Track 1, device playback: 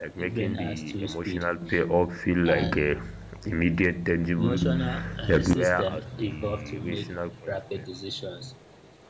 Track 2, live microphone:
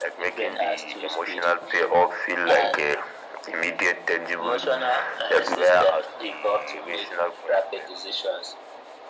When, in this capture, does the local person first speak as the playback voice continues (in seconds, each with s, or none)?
none